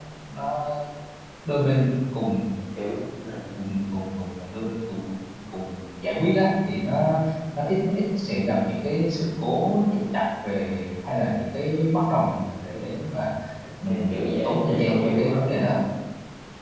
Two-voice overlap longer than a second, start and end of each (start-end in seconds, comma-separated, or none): 13.9-15.8